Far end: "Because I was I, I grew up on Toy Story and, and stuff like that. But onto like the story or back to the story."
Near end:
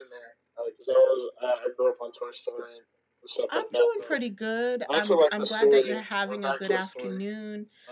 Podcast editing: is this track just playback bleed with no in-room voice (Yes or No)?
No